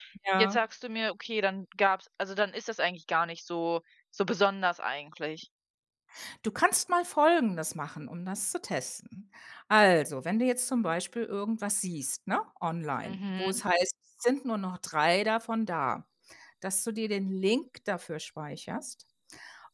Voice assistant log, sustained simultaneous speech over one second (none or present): none